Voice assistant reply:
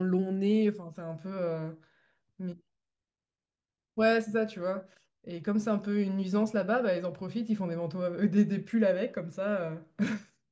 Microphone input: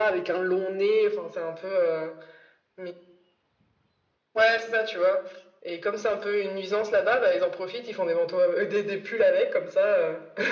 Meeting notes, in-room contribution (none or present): none